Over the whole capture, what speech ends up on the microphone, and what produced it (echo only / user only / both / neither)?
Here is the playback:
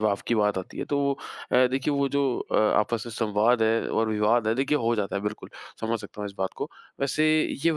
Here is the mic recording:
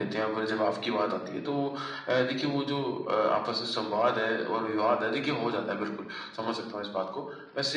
echo only